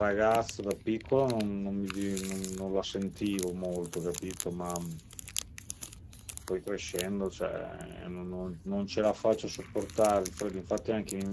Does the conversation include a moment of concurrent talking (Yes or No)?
No